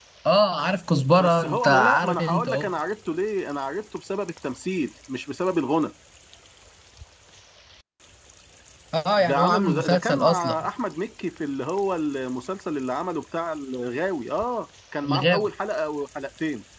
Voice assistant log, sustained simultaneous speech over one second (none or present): present